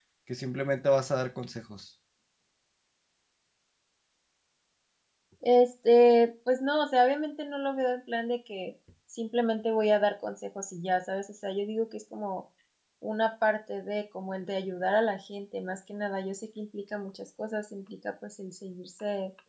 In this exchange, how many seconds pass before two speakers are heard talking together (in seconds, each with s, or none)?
none